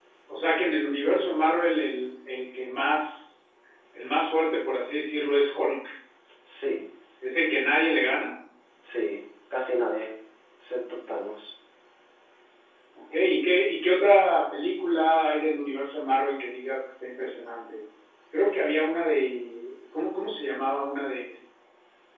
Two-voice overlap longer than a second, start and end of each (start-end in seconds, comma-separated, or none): none